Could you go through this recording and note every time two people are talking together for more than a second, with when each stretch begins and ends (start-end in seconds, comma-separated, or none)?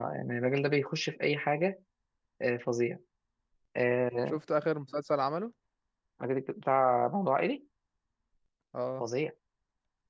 none